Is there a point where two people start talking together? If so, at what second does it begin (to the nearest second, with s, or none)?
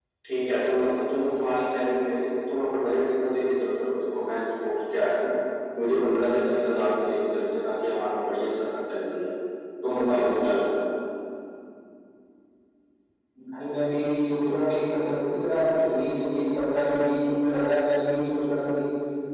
none